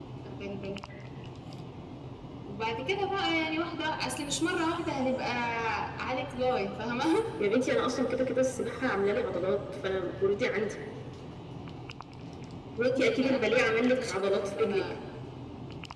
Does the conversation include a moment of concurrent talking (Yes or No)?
Yes